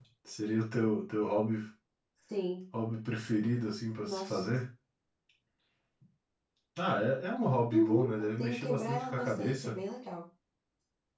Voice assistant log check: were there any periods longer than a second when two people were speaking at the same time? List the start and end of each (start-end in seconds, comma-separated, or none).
7.7-9.8